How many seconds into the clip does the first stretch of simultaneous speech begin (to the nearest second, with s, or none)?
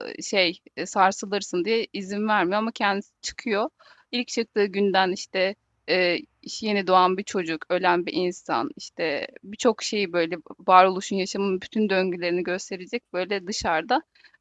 none